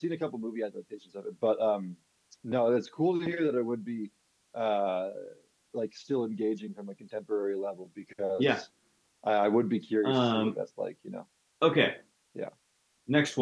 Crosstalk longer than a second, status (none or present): none